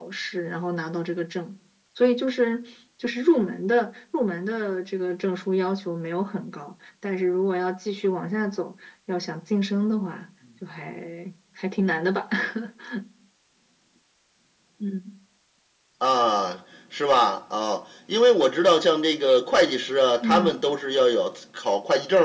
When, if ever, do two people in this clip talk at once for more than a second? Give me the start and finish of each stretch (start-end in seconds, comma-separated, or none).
none